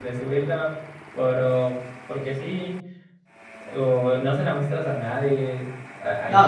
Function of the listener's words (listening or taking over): taking over